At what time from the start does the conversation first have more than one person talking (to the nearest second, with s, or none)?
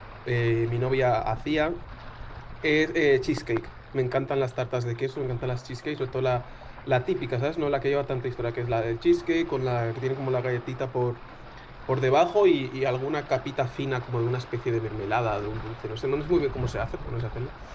none